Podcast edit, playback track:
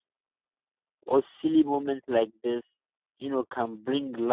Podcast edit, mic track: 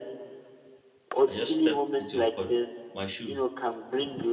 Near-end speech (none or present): present